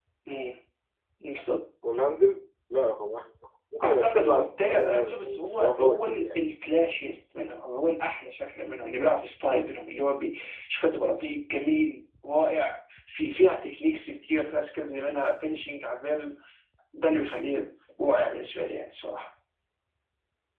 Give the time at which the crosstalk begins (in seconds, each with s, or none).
3.8 s